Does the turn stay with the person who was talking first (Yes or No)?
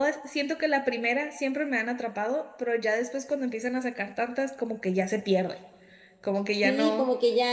No